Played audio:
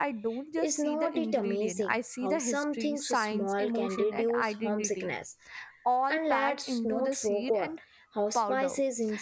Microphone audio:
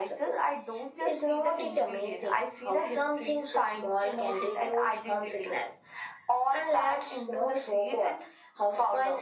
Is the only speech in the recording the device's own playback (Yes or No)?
Yes